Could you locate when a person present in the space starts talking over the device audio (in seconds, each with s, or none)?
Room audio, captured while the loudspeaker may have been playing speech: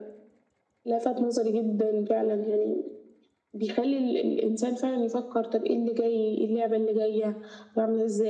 none